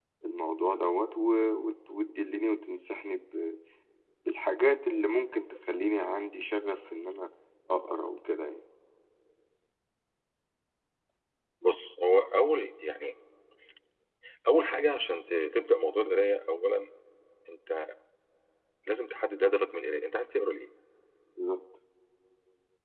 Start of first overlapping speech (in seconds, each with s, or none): none